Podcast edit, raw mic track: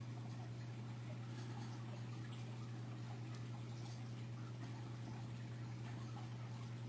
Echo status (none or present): none